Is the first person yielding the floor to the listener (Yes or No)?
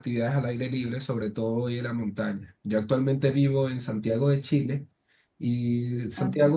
No